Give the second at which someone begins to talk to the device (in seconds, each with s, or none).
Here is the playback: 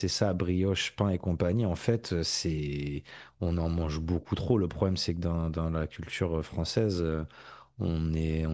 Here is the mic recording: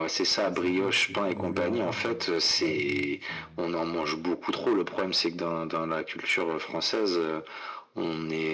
0.4 s